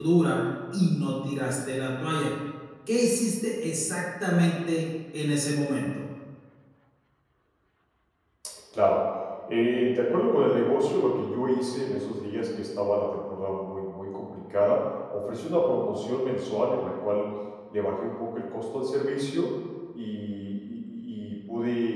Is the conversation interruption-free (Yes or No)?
Yes